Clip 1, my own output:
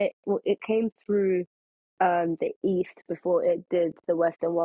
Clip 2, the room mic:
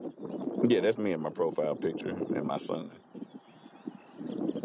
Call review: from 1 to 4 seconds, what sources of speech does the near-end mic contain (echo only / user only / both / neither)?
user only